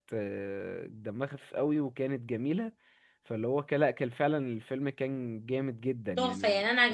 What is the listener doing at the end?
taking over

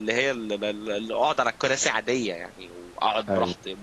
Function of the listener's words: listening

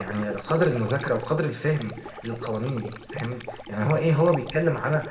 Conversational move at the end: listening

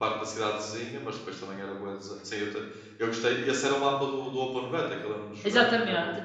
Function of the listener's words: taking over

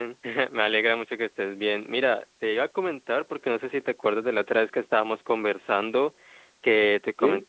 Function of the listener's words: listening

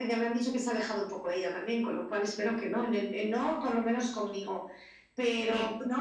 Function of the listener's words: listening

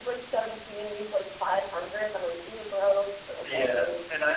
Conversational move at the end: taking over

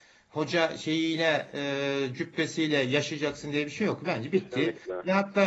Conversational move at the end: listening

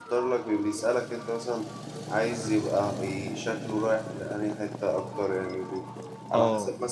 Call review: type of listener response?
listening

